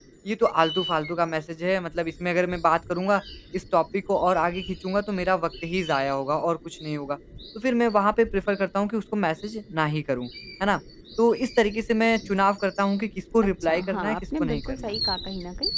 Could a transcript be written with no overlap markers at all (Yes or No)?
No